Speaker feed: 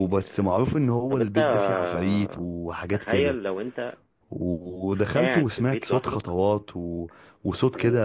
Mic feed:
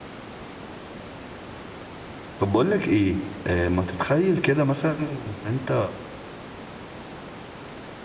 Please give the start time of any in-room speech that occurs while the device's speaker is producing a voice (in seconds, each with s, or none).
2.4 s